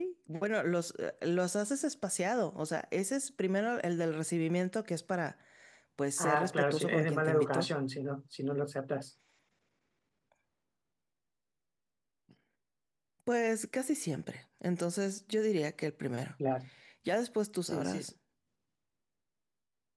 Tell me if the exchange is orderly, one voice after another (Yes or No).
No